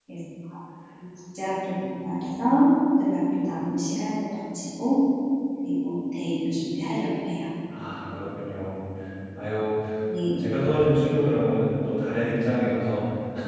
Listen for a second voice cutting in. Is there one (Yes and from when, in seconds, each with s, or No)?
No